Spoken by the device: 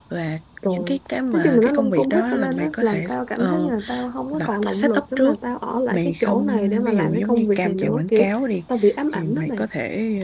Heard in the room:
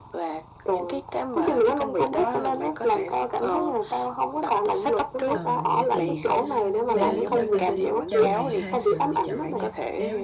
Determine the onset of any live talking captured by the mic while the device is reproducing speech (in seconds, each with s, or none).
5.3 s